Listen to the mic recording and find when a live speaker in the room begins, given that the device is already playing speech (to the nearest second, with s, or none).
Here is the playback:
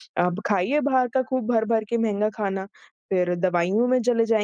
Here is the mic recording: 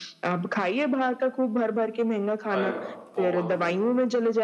3 s